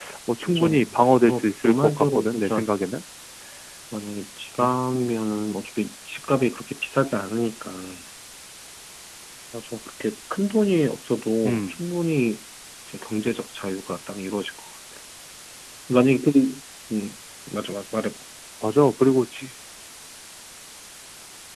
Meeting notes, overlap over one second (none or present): present